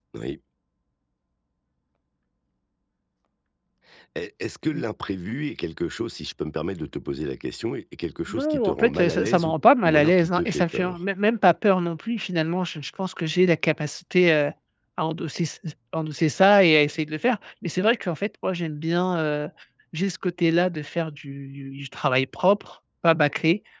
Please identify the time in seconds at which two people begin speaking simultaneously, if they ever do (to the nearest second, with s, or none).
8 s